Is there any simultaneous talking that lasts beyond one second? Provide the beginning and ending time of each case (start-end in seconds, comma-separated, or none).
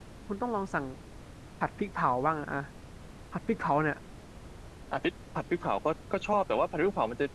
none